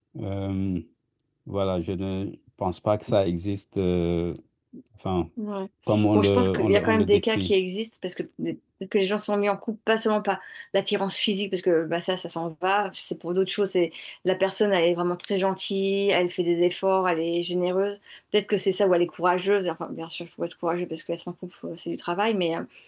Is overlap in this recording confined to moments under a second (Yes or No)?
No